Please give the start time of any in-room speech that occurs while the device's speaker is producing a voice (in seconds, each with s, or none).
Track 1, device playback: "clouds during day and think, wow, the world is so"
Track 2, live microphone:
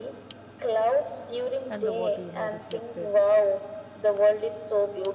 1.7 s